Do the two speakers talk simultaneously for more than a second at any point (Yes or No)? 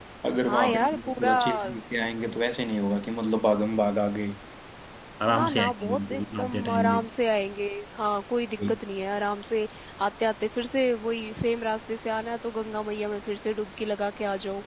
Yes